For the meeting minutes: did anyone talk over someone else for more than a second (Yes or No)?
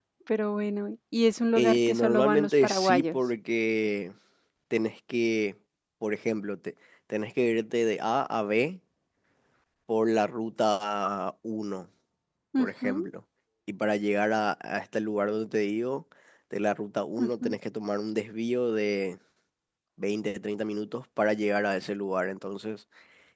Yes